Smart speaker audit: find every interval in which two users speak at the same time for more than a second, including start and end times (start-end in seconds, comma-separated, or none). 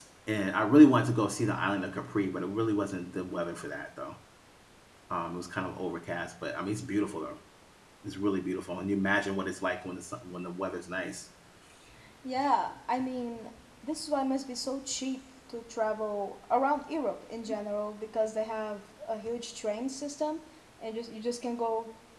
none